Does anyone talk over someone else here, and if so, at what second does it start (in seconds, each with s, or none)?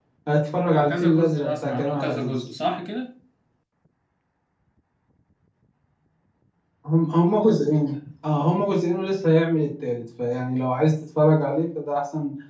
0.7 s